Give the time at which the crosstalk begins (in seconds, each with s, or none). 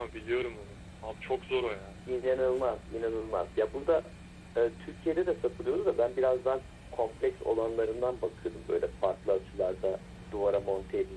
none